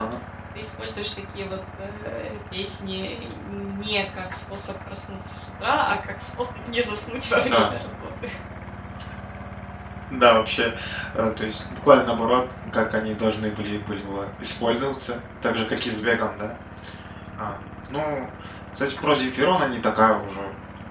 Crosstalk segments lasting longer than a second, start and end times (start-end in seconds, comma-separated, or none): none